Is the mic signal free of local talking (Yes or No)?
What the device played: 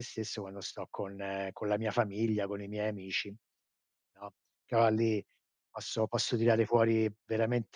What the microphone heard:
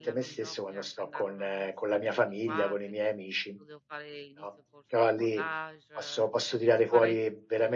No